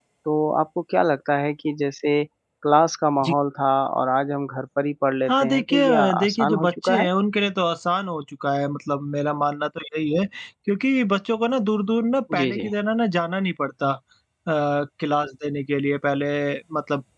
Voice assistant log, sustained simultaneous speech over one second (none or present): present